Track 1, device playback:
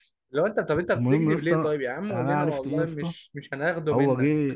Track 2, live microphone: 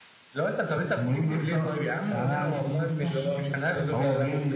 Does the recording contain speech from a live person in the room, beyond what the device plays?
Yes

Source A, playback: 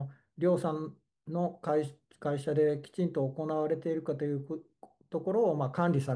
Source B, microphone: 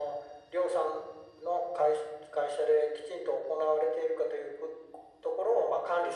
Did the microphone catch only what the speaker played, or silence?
Yes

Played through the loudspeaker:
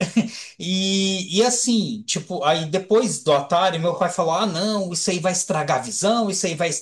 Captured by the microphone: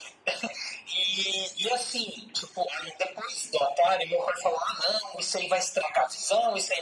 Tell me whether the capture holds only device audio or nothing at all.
Yes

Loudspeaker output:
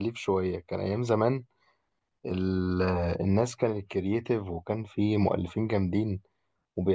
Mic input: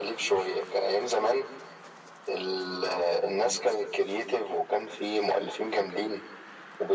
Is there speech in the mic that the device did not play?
No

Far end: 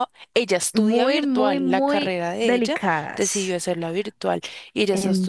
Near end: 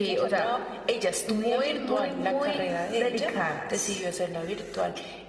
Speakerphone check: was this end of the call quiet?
Yes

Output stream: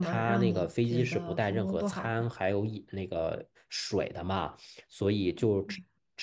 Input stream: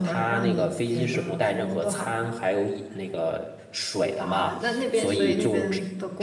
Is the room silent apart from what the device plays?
No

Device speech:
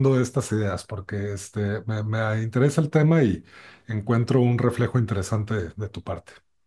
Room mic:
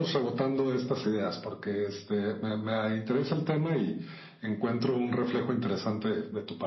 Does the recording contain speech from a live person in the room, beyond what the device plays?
No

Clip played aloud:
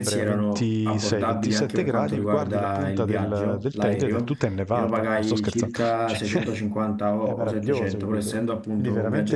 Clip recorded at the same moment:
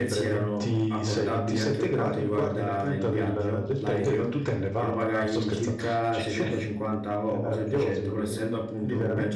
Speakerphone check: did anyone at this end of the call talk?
No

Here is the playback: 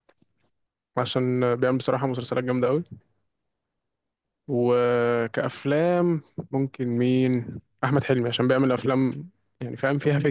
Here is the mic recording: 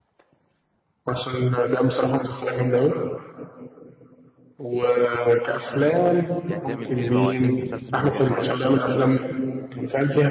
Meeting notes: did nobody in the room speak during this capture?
No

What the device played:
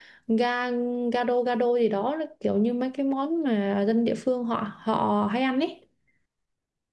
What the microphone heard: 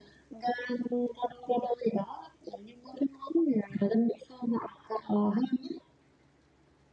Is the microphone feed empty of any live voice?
Yes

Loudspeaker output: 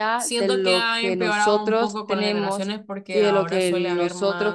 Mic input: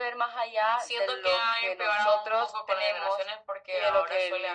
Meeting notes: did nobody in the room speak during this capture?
Yes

